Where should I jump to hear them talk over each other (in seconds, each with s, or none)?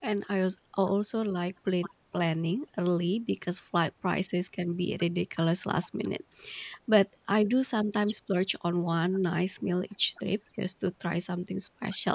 none